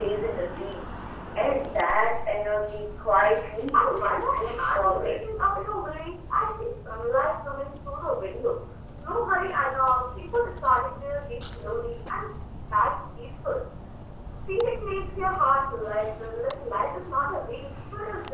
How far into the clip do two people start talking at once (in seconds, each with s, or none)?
3.7 s